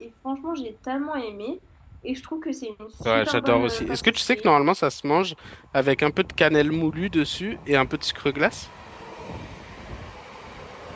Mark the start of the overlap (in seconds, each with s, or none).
3.0 s